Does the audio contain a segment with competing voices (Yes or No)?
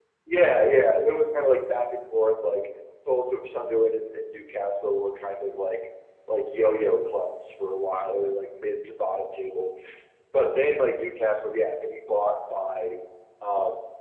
No